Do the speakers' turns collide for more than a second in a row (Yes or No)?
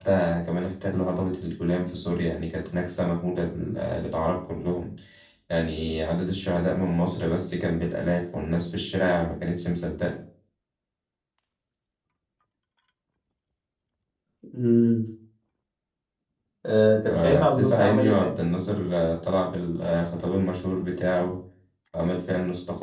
Yes